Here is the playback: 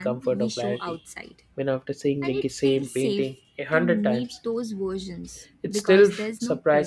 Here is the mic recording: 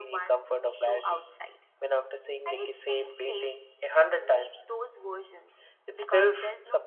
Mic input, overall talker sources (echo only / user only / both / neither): echo only